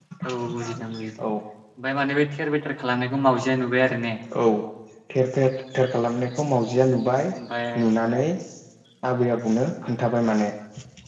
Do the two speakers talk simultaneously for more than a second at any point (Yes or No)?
No